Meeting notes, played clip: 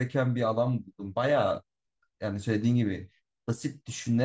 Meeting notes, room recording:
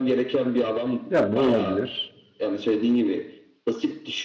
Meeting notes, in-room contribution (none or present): present